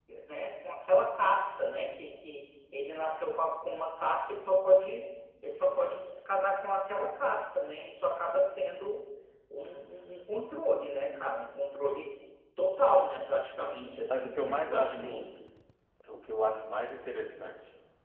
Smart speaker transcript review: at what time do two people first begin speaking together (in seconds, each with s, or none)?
14.1 s